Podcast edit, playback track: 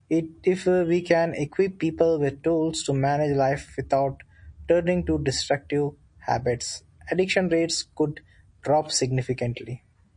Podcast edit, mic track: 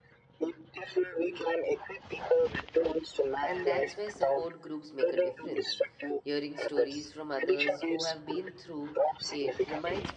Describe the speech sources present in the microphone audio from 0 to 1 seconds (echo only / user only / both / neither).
echo only